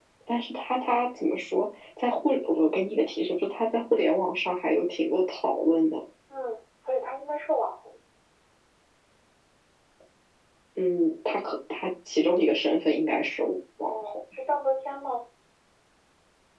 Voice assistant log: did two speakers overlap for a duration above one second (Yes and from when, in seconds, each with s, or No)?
No